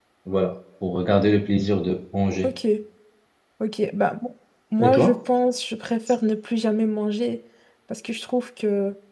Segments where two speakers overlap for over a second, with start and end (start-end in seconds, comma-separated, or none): none